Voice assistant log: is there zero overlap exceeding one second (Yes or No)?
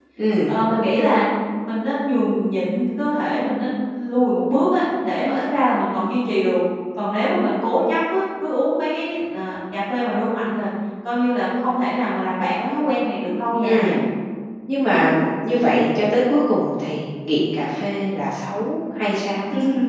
Yes